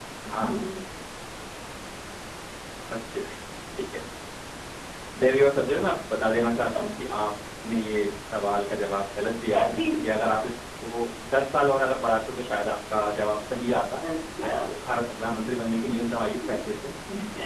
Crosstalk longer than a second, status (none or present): none